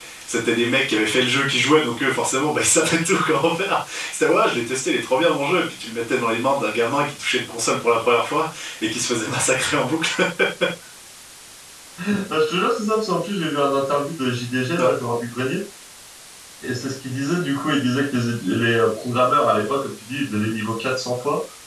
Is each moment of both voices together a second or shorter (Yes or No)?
Yes